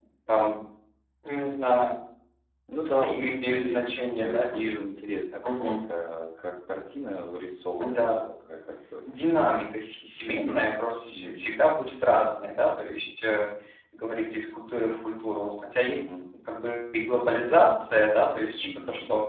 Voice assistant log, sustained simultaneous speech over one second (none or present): present